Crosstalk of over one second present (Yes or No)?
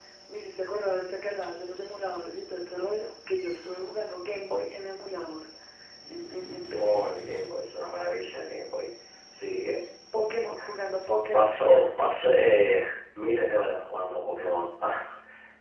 No